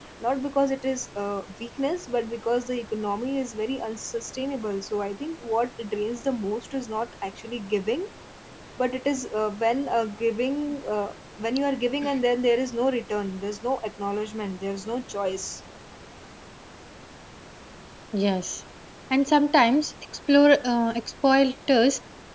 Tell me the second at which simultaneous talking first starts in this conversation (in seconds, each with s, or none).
none